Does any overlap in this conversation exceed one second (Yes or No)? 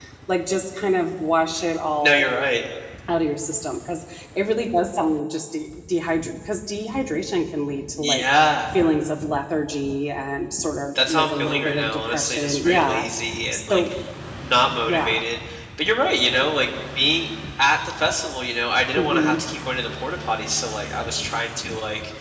Yes